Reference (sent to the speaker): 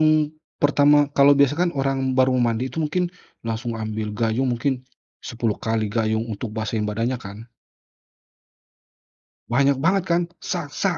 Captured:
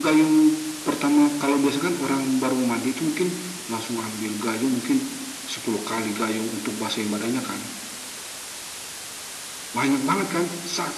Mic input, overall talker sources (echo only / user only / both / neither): echo only